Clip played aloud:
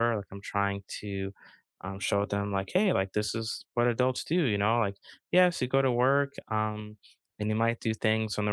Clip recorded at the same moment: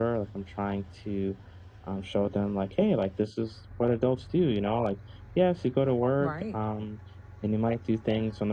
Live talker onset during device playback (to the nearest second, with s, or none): 6 s